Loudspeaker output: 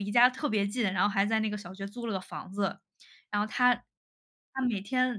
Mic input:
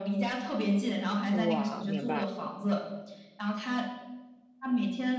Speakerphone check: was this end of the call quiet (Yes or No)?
No